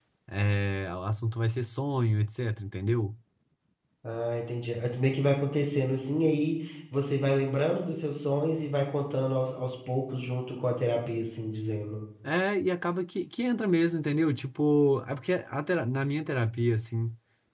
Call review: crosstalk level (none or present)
none